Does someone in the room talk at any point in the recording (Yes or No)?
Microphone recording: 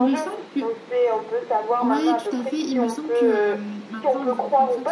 Yes